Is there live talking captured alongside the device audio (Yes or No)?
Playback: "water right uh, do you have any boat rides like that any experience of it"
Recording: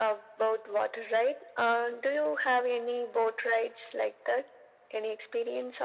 No